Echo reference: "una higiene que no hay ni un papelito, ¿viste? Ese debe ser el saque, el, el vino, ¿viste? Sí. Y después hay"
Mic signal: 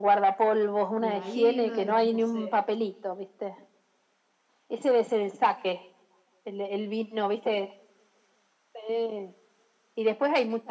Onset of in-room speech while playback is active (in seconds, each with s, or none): 1.0 s